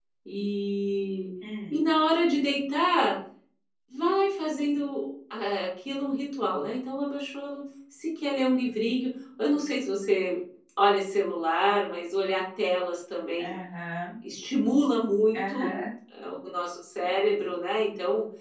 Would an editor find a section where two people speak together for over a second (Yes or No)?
No